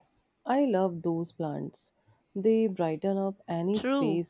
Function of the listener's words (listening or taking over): taking over